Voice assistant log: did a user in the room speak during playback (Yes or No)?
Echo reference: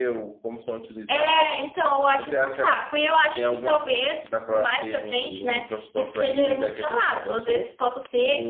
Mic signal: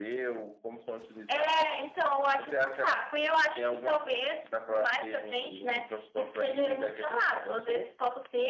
No